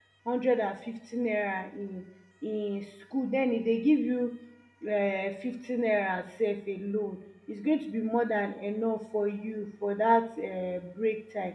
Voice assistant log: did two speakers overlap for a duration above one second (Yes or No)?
No